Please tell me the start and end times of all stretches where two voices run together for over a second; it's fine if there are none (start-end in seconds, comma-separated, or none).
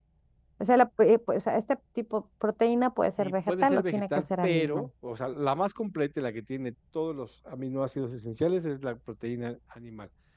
3.2-4.9